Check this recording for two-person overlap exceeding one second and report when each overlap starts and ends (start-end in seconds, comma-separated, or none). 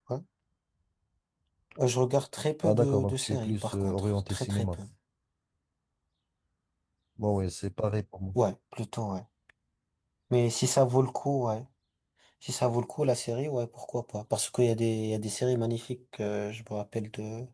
2.6-4.7